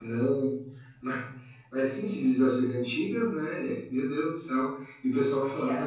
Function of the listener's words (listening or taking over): taking over